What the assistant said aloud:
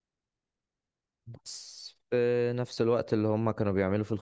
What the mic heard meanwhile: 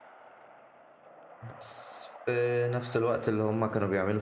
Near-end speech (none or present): none